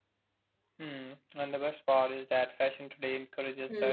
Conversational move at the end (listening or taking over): listening